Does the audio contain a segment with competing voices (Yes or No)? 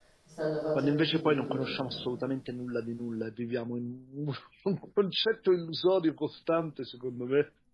Yes